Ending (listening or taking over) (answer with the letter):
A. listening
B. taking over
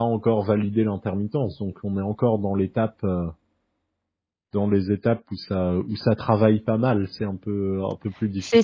B